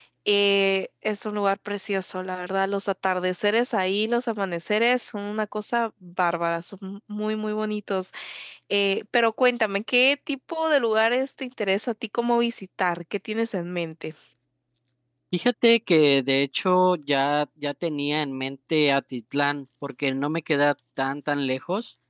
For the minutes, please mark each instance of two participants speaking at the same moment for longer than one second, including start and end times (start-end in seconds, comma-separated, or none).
none